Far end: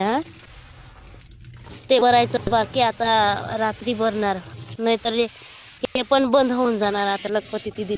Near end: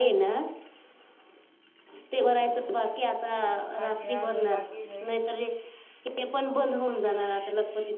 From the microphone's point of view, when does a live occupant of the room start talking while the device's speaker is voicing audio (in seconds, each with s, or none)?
3.7 s